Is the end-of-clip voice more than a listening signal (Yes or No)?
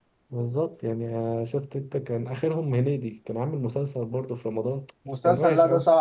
Yes